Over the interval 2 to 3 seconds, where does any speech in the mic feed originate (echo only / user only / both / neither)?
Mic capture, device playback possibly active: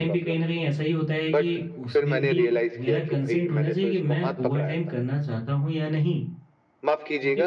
both